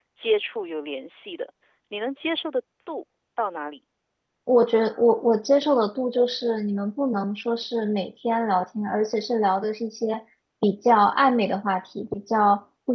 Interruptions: none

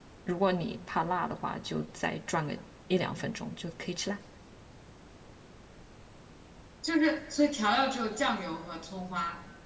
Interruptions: none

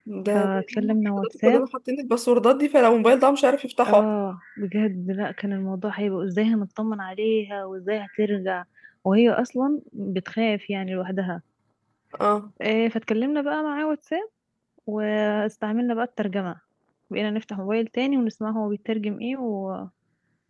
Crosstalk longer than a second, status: present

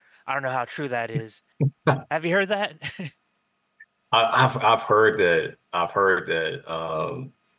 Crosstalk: none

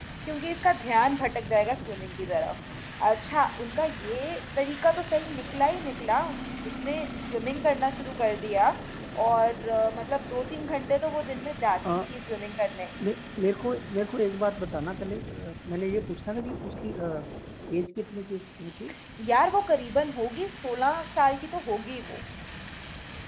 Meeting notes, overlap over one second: none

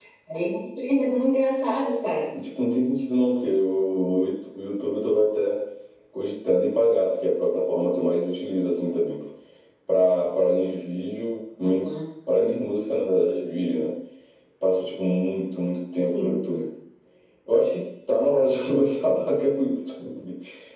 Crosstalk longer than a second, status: none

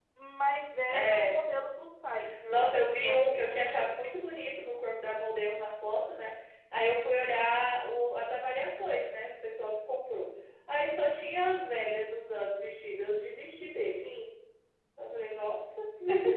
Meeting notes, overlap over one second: present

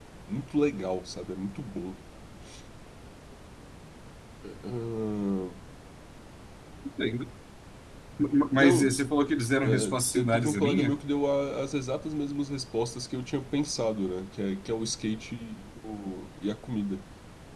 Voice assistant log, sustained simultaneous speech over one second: present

